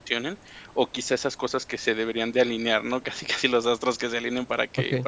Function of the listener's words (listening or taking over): listening